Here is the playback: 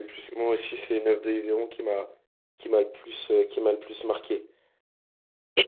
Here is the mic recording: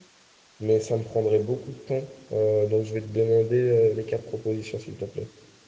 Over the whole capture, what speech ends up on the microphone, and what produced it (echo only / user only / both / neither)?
user only